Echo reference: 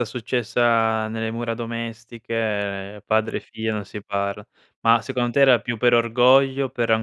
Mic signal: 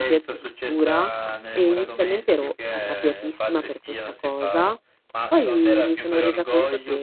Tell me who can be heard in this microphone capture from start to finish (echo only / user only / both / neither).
both